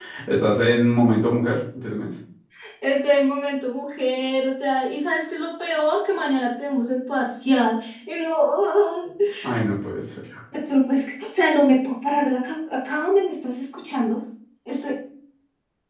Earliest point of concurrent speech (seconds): none

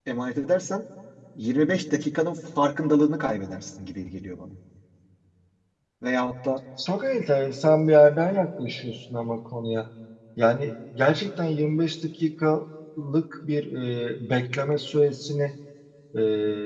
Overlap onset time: none

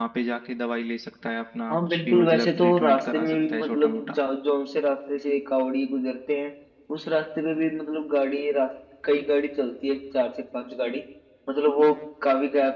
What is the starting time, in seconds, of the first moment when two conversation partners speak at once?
1.7 s

